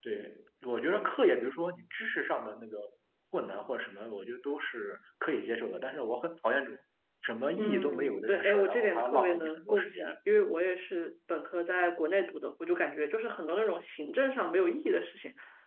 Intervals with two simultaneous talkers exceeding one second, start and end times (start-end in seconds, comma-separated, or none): 7.6-10.0